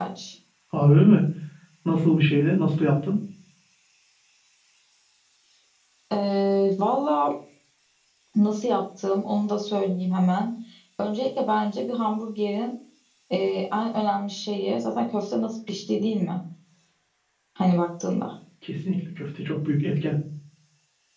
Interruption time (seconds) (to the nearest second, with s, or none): none